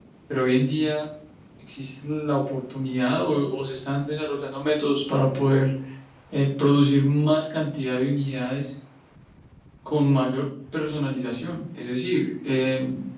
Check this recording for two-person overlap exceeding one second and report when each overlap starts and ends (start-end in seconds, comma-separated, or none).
none